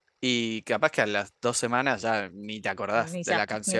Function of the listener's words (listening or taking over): taking over